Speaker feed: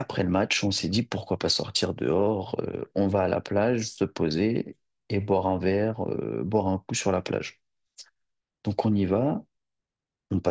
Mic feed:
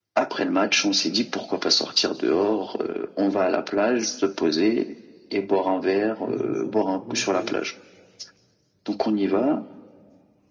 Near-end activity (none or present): present